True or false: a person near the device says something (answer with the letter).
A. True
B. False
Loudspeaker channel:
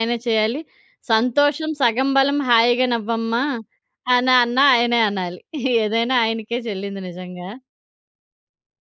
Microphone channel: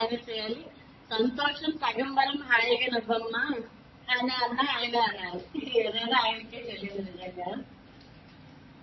B